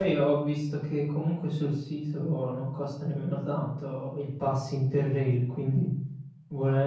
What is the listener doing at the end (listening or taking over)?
listening